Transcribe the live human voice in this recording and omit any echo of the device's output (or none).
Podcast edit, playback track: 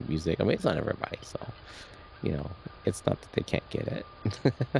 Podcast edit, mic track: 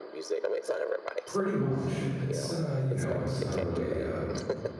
Pretty much. It's, uh, you know, it's not a really, um,